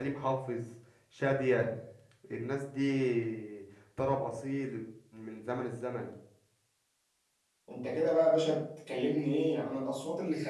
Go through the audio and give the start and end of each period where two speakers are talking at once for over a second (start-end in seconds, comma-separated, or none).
none